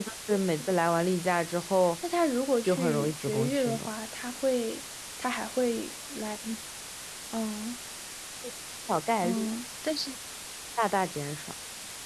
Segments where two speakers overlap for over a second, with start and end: 2.6-3.9

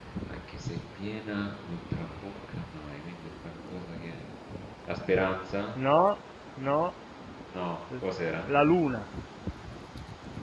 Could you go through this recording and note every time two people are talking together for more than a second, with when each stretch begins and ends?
none

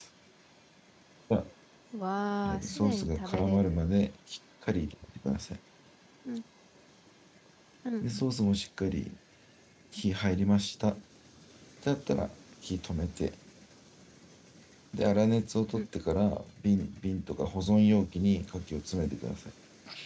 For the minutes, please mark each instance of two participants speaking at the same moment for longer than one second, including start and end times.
2.4-3.8

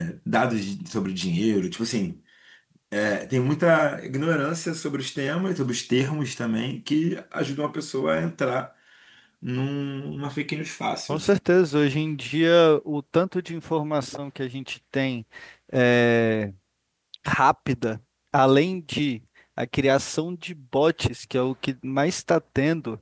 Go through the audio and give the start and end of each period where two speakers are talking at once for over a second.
none

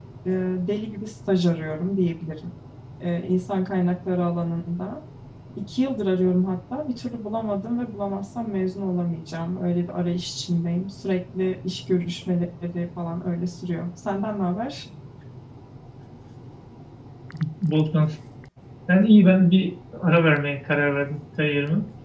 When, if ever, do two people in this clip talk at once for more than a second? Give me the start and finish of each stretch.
none

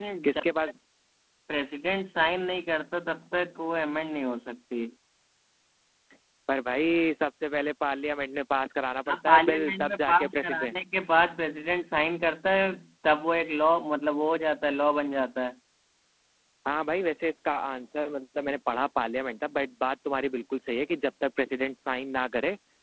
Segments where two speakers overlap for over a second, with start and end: 9.1-10.7

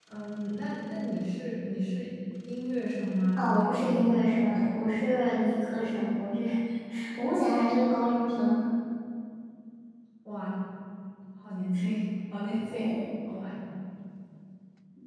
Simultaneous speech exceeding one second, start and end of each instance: 3.4-4.6

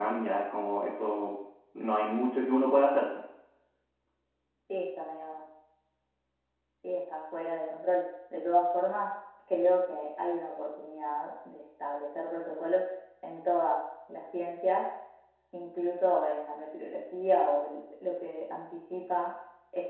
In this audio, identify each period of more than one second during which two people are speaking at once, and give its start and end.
none

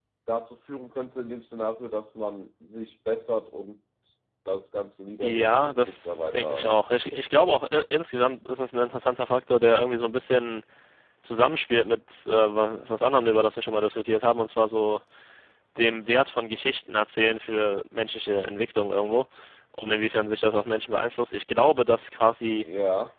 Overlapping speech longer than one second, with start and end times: 5.2-6.8

